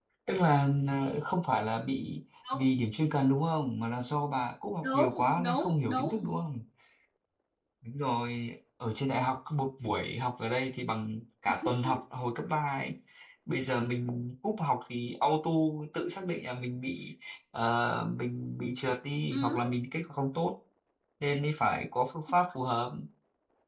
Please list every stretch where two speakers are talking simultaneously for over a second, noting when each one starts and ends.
4.8-6.2

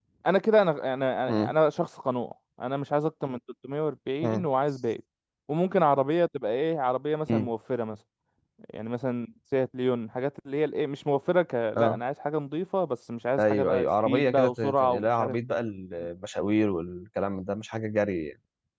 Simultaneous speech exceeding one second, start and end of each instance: 13.4-15.3

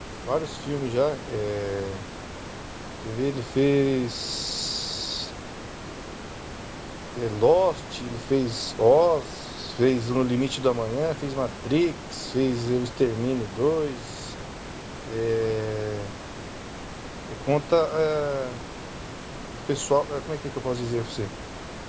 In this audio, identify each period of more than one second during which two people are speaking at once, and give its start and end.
none

